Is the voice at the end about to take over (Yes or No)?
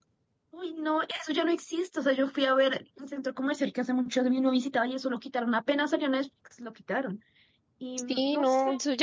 Yes